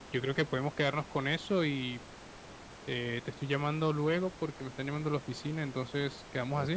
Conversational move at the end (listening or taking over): taking over